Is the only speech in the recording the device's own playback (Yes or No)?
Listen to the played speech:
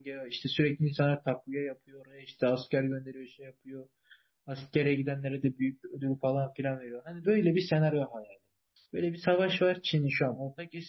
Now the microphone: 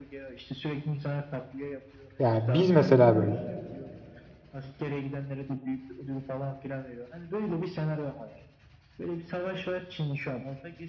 No